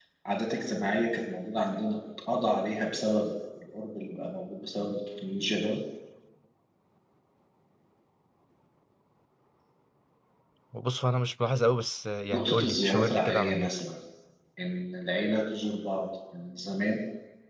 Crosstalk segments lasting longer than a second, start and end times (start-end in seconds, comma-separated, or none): 12.3-13.7